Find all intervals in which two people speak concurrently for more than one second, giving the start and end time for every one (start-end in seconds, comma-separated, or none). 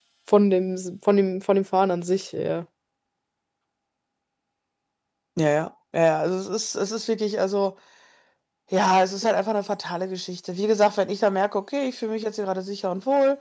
none